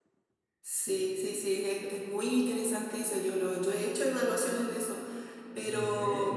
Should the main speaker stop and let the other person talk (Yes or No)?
No